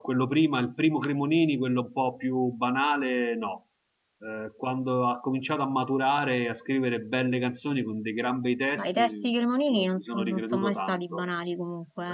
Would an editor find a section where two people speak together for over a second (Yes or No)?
Yes